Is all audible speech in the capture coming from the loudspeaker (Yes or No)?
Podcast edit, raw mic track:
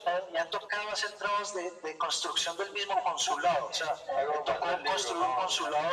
Yes